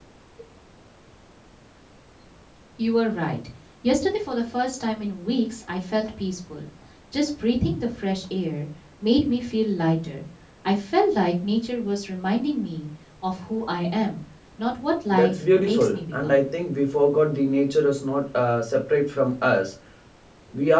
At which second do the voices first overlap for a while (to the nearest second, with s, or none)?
15 s